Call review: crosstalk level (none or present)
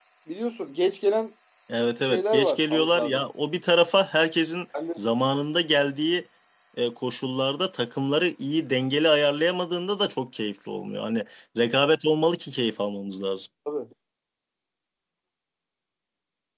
present